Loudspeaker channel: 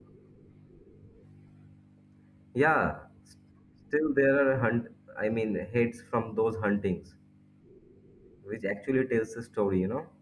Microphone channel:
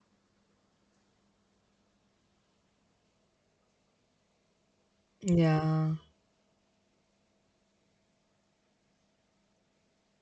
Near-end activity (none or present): present